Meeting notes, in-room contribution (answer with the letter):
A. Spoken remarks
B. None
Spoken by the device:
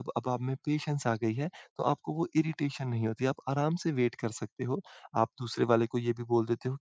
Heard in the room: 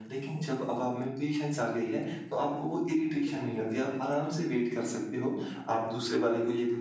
B